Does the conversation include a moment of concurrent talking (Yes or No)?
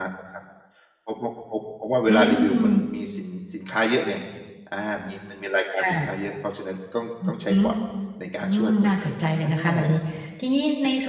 Yes